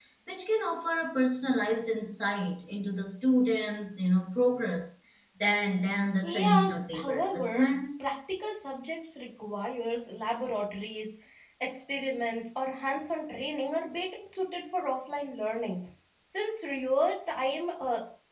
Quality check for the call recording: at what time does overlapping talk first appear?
6 s

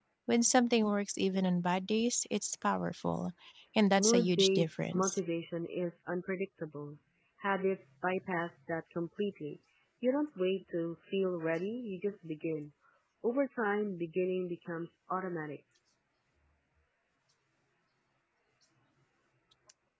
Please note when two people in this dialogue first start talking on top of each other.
4 s

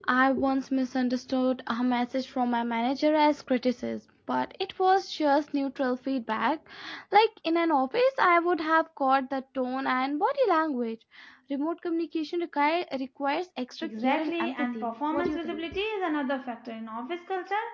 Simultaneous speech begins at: 14 s

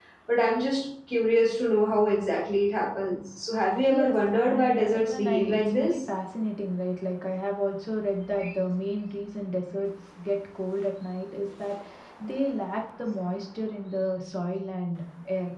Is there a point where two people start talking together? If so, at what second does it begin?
4 s

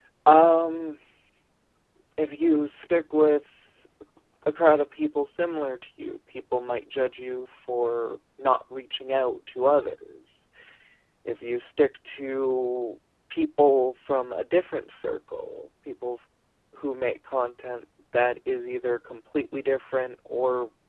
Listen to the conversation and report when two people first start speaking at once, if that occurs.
none

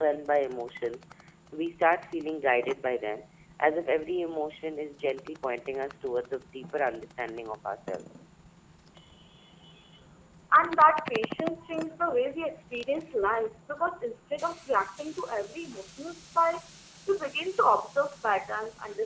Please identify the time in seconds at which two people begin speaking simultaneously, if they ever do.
none

